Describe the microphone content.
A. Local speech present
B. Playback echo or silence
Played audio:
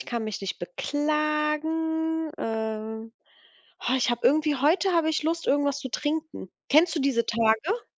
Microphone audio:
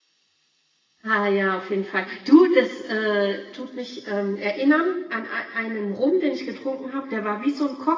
A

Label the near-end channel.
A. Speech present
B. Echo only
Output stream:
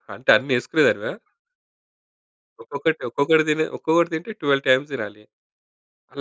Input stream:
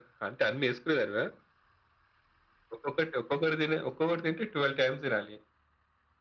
B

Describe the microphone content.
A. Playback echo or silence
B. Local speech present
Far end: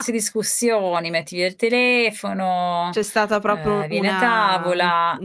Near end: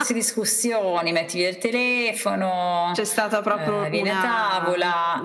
A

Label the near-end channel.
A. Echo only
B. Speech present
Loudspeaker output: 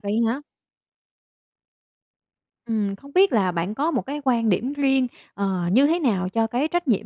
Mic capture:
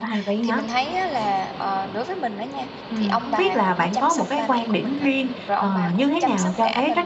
B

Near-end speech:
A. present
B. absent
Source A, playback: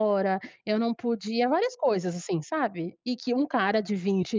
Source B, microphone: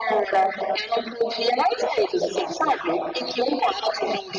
B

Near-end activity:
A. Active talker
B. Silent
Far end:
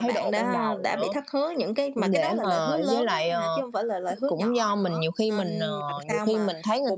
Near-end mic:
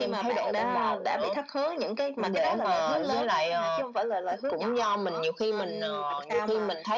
B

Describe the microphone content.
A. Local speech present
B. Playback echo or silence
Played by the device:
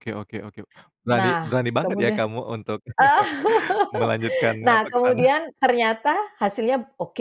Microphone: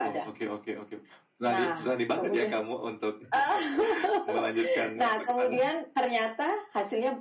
B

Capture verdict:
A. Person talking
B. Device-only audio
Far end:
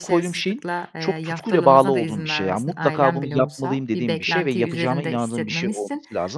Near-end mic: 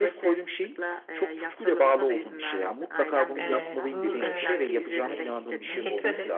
A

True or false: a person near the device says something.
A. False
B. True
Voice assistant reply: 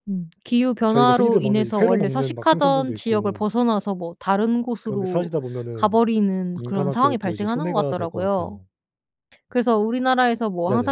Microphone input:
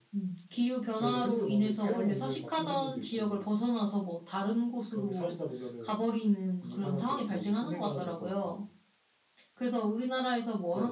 A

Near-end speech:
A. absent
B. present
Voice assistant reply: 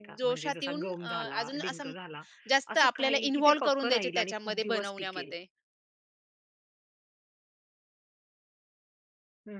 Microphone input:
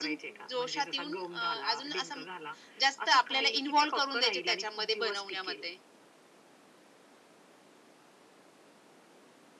A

